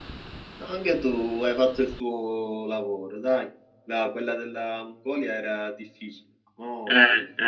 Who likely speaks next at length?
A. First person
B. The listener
B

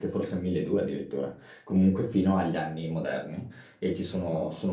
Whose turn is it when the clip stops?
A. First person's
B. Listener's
A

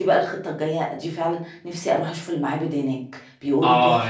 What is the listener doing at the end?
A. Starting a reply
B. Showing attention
A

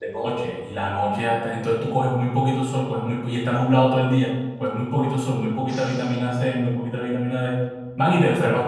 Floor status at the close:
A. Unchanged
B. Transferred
A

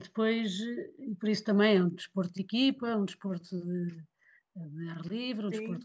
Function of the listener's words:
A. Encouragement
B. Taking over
B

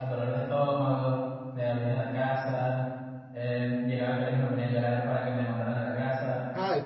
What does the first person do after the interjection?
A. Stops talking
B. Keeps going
A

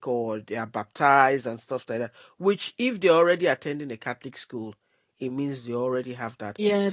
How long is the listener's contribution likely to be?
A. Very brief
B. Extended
B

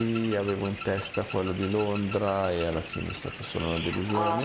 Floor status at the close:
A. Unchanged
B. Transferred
B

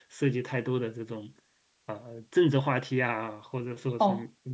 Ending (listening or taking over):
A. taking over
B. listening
A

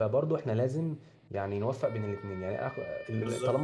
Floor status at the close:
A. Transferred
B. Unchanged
B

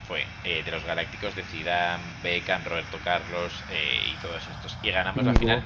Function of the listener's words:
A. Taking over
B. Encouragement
B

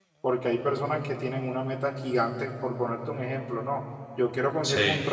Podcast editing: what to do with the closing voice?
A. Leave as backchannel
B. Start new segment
A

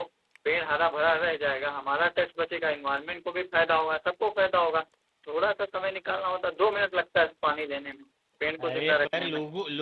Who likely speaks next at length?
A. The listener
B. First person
A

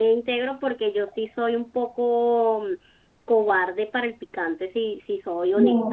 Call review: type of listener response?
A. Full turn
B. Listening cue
A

